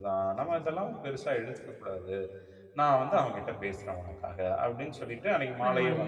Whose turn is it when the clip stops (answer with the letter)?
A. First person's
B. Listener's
A